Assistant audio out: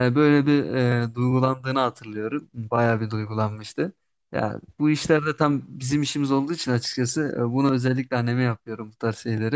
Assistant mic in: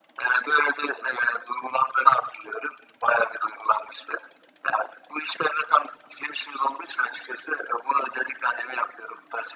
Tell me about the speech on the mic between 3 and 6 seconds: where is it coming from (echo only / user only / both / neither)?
echo only